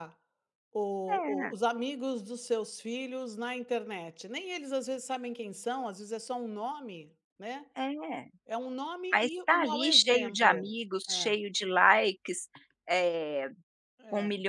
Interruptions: present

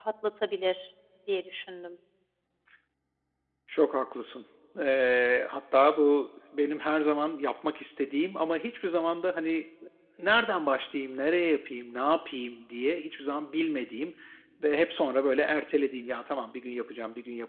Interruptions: none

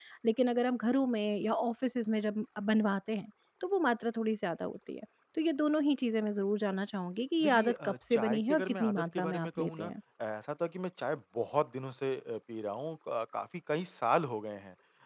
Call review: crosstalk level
present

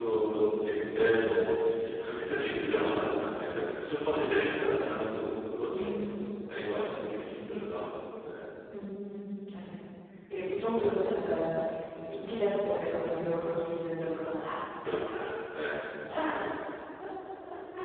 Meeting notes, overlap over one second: none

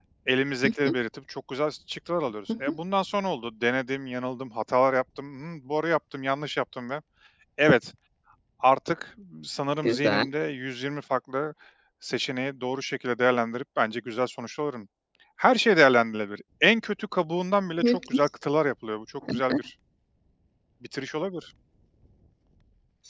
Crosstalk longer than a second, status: none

